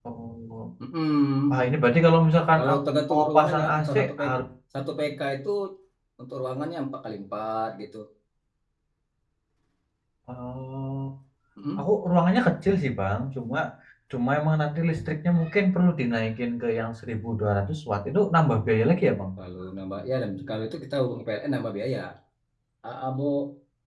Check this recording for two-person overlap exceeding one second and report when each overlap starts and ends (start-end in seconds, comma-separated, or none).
2.6-4.4